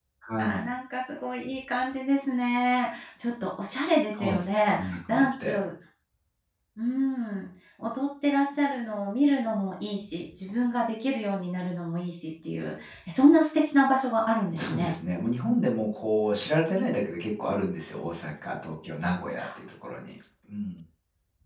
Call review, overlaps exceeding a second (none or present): present